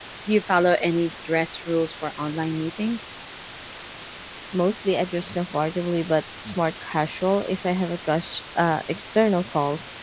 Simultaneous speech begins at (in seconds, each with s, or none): none